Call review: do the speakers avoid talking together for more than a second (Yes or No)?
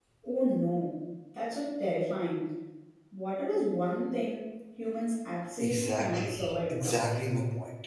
No